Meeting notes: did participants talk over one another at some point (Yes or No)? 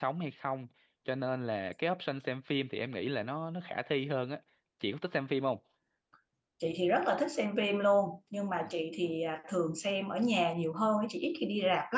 No